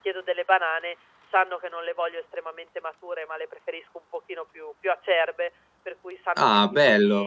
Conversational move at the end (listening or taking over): listening